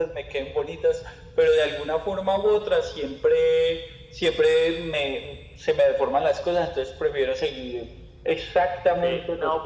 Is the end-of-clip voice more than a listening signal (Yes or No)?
Yes